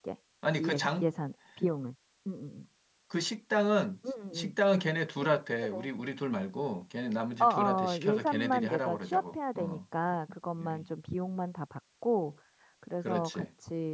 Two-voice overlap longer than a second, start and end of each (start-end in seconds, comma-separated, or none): 7.4-9.8